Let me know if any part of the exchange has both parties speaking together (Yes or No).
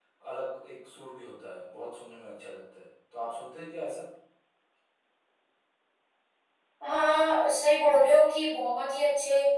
No